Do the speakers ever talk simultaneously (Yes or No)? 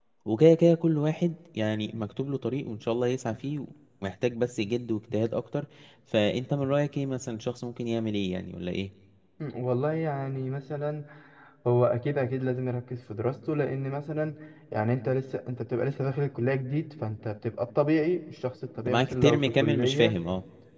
Yes